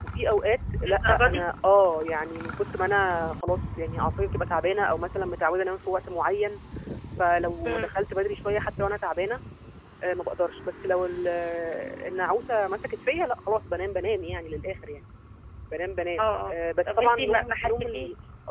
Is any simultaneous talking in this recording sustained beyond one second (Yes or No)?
Yes